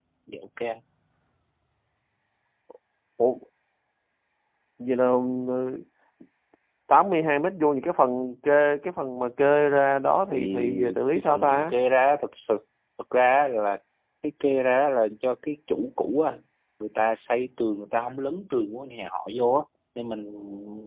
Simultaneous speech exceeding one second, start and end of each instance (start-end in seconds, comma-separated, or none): 10.3-11.8